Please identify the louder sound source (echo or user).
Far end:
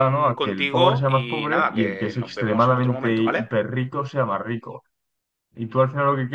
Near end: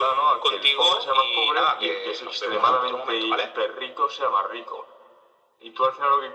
echo